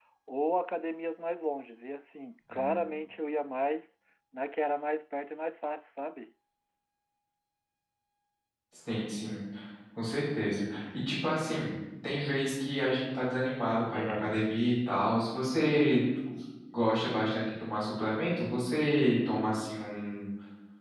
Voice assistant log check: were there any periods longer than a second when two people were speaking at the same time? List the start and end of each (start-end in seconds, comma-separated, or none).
none